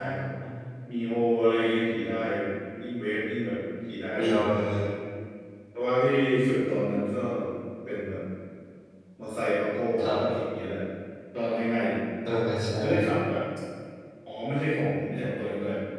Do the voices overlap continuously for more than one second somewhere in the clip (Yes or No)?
No